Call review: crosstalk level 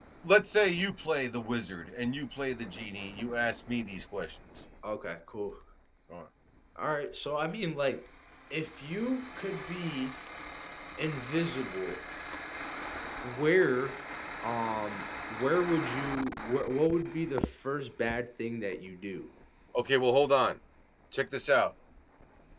none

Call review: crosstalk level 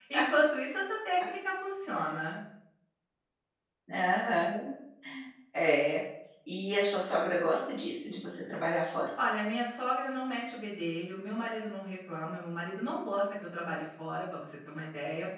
none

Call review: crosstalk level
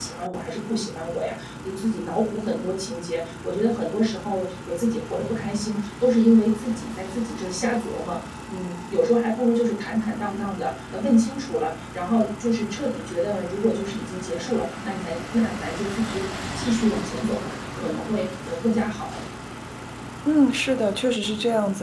none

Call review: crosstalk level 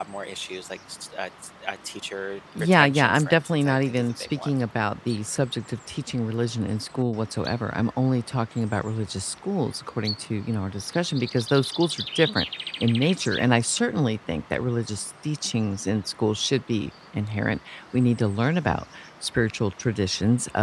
present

